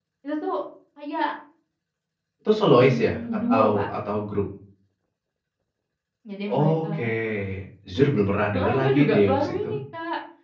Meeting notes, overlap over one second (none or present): present